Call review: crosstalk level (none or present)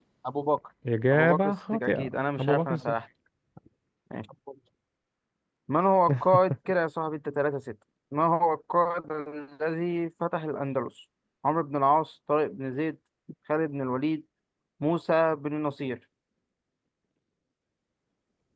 present